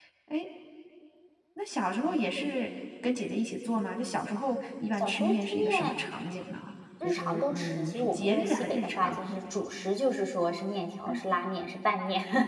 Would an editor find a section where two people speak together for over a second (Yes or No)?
Yes